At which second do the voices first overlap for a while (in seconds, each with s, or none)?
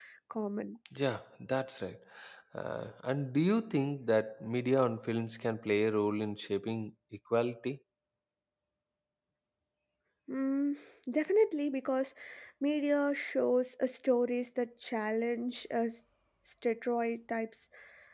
none